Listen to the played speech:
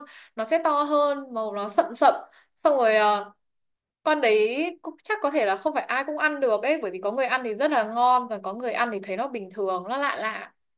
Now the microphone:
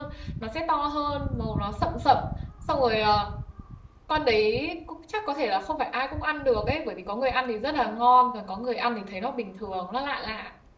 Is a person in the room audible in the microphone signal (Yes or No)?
No